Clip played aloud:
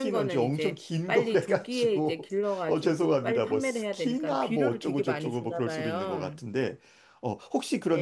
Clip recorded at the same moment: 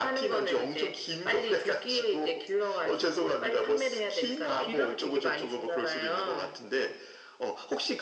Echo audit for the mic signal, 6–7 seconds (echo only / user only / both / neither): echo only